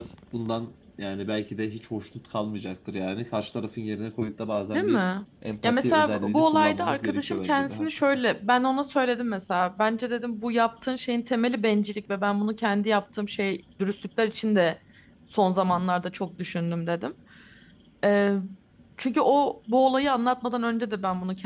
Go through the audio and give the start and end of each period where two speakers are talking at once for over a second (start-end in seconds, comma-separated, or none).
5.6-8.2